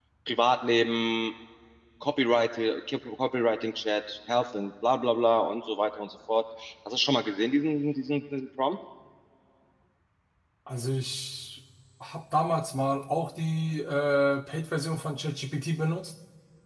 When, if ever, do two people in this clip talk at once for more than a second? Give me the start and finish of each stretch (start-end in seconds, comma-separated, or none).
none